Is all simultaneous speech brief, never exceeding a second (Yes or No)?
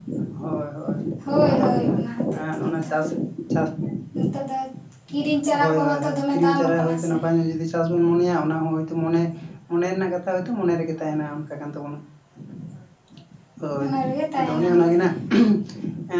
No